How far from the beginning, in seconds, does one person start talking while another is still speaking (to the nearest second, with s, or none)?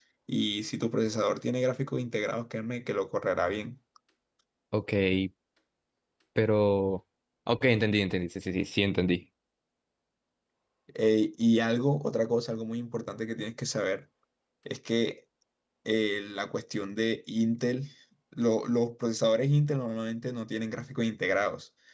none